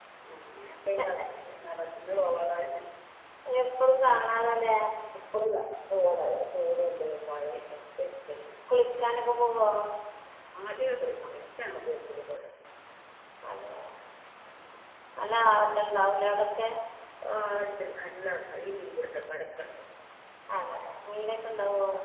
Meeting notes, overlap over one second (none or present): none